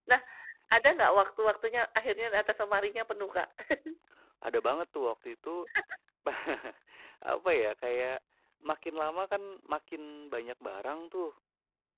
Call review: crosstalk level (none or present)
none